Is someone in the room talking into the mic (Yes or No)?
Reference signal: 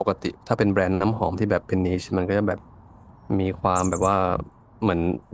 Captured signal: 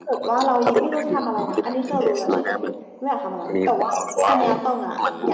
Yes